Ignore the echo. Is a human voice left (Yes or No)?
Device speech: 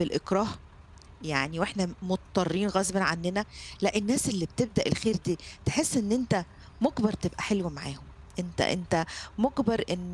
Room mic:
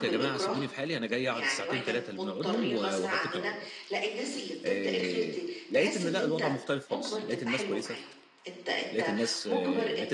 Yes